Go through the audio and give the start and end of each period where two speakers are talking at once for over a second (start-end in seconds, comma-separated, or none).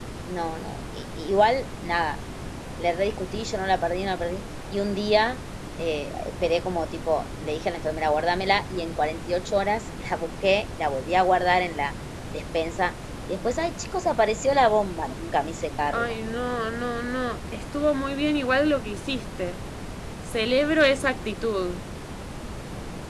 none